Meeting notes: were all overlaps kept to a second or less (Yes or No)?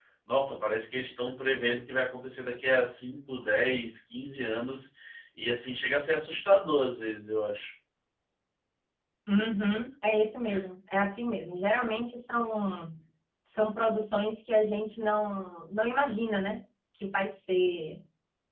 Yes